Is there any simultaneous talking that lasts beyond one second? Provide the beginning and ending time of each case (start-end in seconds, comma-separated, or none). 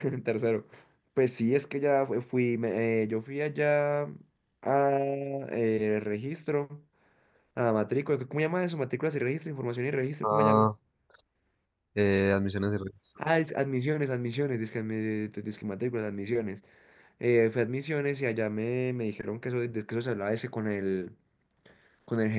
none